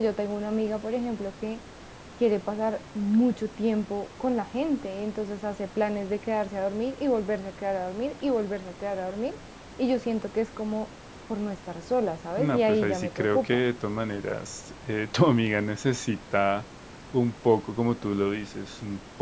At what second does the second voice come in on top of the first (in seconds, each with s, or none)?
12.4 s